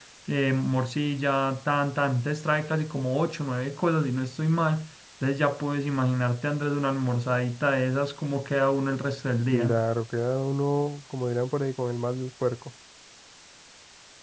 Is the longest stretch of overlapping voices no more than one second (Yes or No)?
Yes